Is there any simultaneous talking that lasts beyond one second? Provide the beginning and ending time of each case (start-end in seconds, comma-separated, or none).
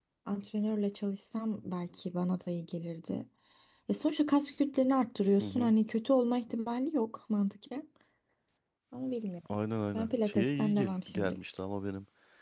9.9-11.4